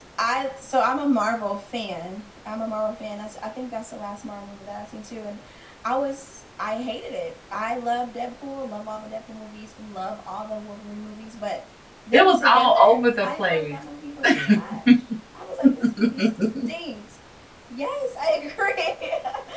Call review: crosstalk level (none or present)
present